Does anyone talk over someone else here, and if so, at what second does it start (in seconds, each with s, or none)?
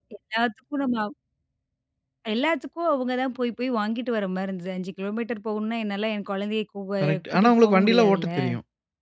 7.0 s